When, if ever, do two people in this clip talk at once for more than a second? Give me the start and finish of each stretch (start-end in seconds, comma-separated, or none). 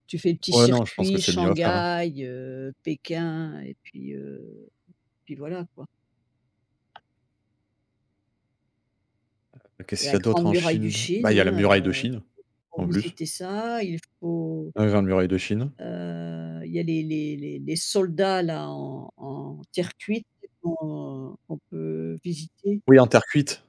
0.5-1.8, 10.0-12.1